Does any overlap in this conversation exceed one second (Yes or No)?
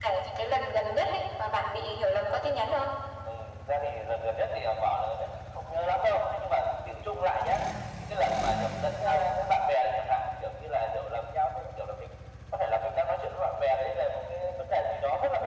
No